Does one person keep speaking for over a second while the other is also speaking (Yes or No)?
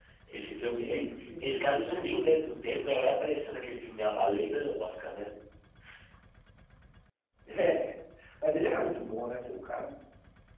Yes